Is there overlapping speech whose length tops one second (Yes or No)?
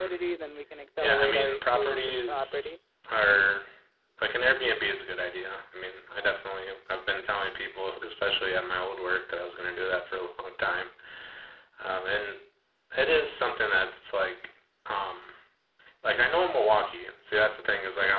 Yes